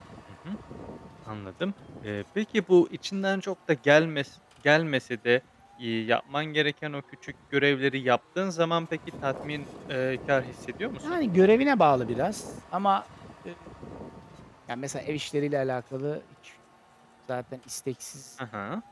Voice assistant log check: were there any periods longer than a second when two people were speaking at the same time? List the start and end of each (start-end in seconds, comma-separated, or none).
none